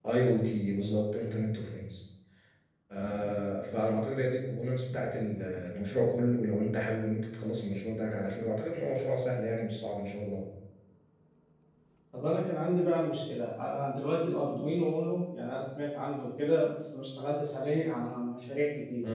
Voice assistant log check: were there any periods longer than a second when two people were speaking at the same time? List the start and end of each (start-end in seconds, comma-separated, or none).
none